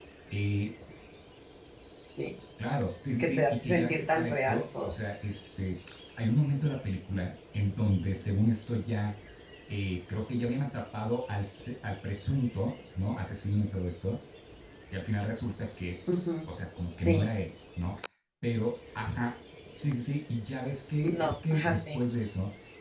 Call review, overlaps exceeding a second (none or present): present